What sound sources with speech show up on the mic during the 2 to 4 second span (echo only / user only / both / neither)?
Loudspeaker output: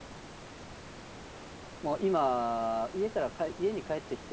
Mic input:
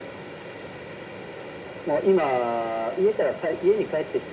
echo only